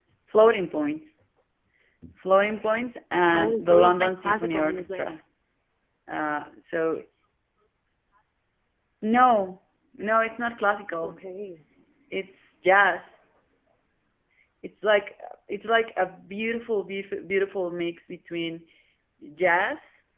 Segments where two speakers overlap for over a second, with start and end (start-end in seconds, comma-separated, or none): 3.3-5.1